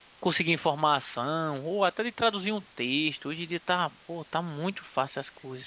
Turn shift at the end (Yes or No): Yes